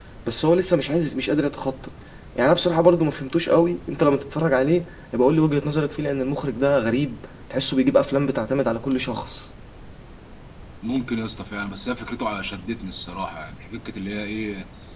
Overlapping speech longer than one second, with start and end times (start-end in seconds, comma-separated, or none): none